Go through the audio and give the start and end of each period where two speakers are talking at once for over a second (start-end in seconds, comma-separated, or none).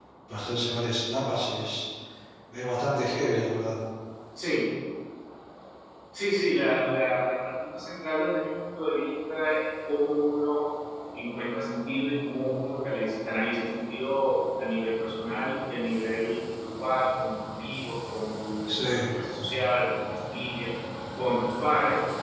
none